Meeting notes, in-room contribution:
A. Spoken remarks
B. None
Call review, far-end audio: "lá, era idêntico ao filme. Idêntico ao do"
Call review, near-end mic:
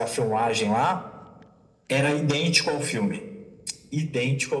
B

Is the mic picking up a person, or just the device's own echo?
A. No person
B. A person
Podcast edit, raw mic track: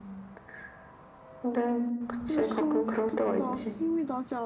B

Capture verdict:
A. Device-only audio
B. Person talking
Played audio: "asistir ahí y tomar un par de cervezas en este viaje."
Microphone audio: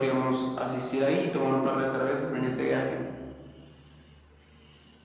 B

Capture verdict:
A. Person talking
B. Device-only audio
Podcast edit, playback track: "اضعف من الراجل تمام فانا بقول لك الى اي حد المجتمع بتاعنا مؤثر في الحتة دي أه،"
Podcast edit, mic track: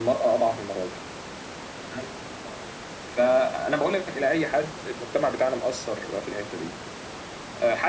B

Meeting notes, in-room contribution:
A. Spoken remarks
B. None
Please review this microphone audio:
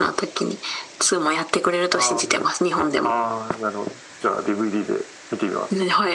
B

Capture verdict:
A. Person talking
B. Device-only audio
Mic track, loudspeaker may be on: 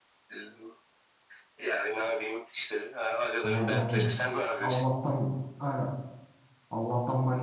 A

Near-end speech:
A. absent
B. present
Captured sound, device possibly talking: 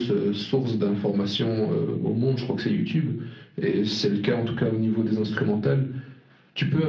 A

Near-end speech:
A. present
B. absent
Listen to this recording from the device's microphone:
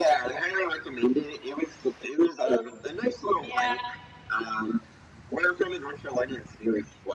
A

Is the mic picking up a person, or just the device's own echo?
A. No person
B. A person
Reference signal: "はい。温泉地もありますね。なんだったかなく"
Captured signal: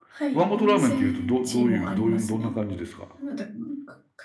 B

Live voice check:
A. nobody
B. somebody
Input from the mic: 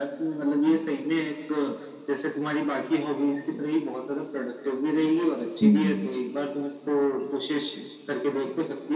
B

